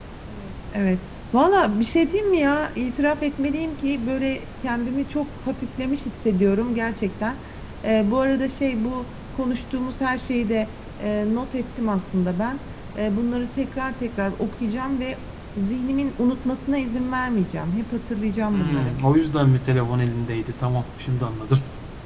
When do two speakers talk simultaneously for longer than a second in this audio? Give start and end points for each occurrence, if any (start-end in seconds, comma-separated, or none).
none